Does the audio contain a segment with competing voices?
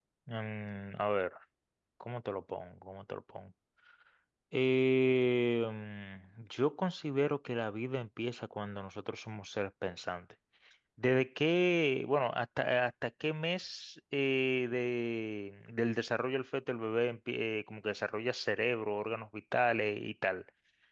No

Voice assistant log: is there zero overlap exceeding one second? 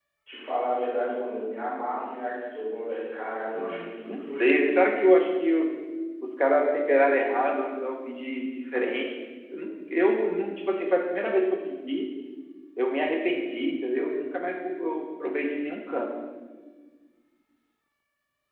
No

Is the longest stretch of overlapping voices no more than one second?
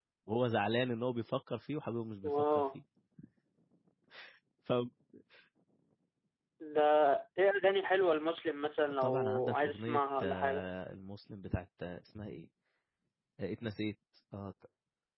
No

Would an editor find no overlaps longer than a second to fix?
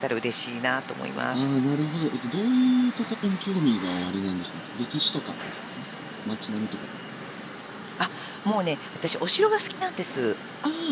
Yes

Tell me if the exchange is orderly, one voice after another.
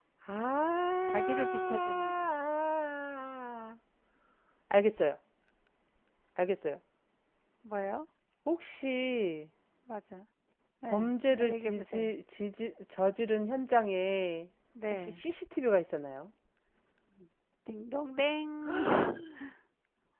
No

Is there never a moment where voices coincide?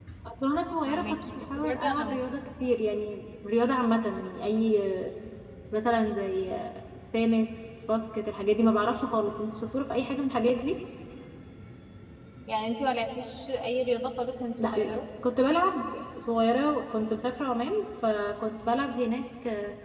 No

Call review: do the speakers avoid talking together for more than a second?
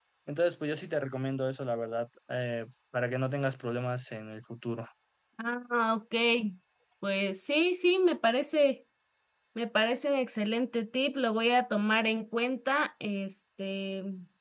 Yes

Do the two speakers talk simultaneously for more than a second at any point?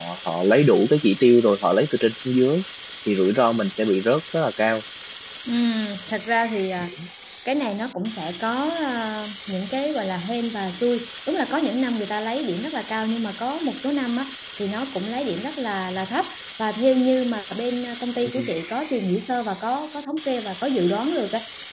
No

